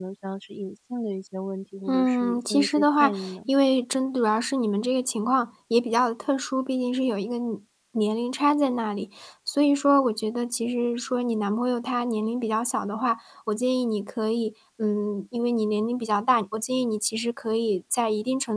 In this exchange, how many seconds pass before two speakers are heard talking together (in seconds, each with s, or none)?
1.9 s